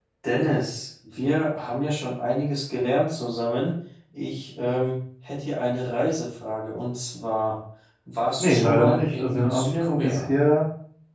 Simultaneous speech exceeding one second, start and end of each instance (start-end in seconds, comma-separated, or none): 8.4-10.3